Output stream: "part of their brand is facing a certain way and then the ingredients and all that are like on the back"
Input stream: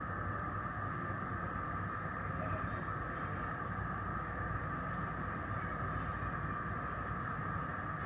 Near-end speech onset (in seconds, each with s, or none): none